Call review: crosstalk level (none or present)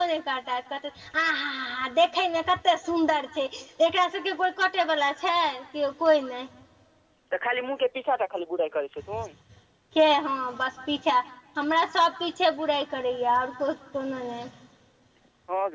none